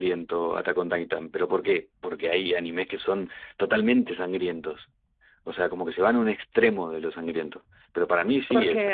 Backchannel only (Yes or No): No